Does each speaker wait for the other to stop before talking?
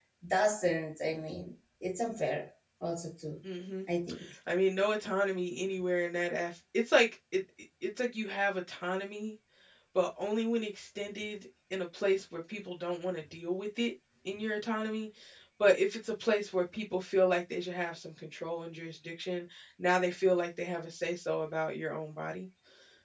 Yes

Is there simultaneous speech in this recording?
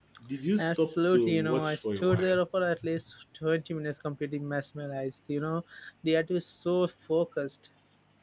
Yes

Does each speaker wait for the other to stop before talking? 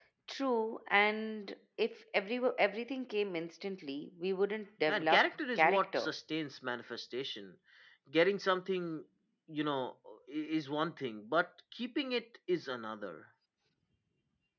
No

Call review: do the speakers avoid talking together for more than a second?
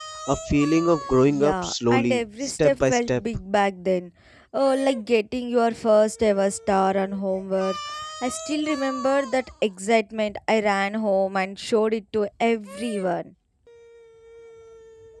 No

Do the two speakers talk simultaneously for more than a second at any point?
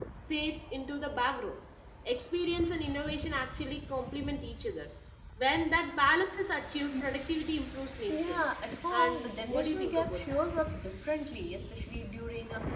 Yes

